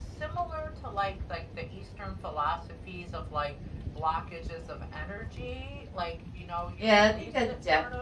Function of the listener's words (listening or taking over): taking over